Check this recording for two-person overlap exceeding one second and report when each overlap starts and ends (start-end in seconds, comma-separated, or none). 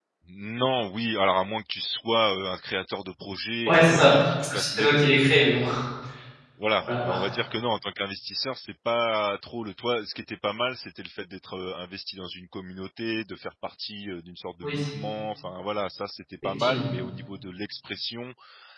3.7-5.1